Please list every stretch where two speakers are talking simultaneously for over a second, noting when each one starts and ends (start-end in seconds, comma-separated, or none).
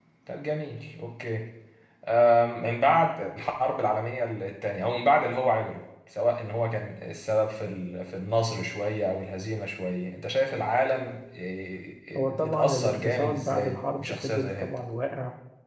12.2-14.7